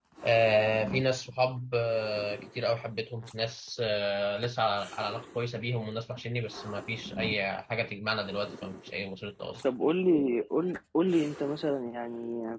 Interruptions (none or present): none